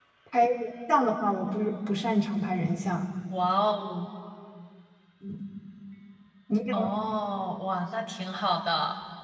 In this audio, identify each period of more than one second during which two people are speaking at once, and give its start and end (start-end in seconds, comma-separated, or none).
none